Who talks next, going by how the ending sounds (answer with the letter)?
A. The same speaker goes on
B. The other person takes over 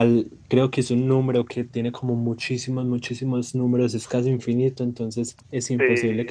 A